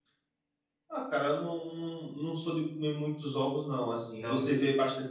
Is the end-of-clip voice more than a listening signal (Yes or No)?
No